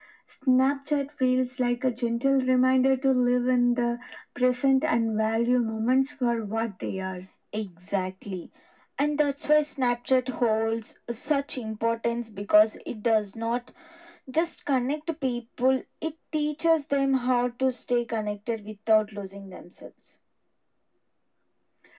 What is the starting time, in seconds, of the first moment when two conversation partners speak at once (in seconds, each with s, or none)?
none